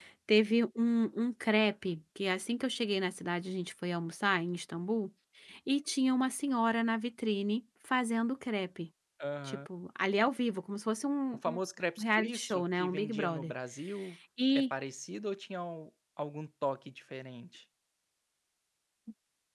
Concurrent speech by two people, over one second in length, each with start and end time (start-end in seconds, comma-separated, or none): 12.0-13.5